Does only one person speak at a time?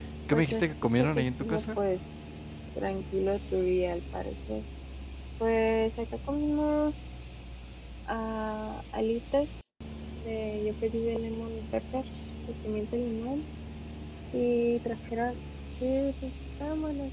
No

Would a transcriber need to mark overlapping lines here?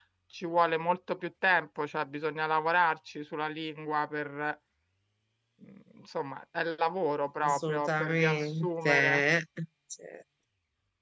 Yes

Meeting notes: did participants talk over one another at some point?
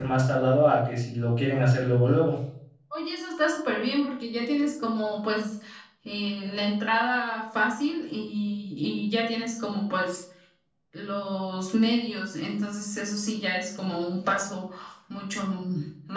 No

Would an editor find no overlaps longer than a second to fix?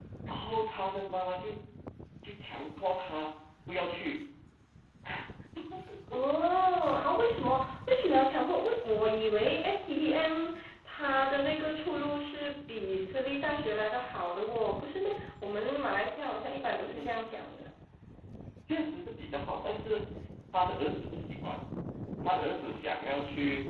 Yes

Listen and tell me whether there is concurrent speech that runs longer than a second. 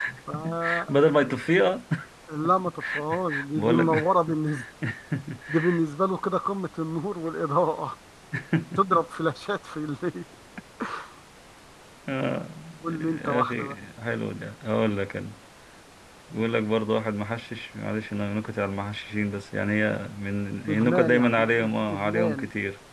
Yes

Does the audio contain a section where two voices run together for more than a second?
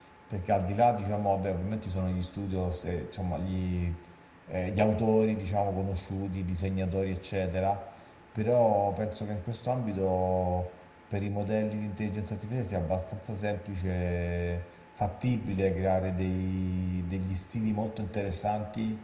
No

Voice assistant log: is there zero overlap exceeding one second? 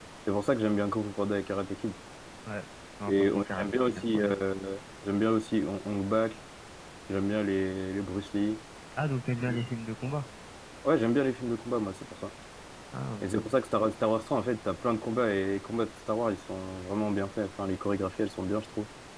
No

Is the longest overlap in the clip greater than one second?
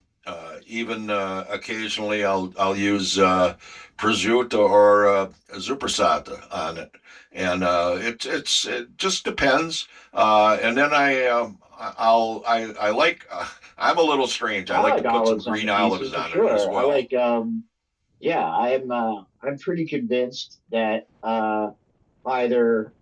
Yes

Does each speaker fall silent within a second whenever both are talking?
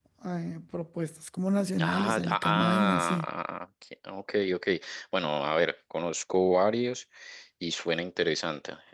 No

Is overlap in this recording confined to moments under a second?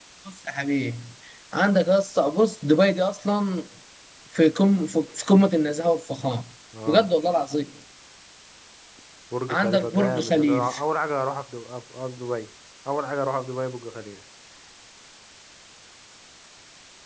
No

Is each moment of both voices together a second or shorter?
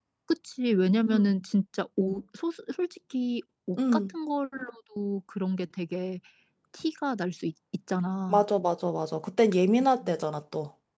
Yes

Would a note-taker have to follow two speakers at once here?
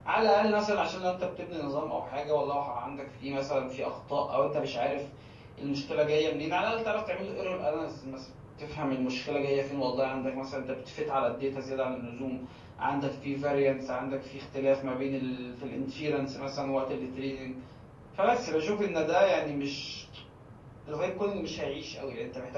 No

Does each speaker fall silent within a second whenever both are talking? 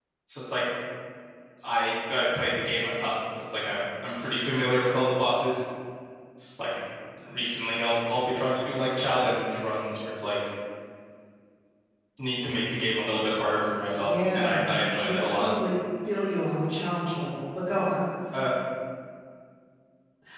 No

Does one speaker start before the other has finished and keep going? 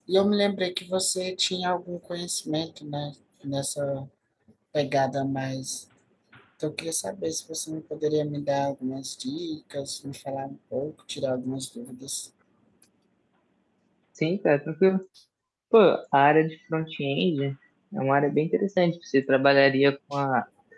No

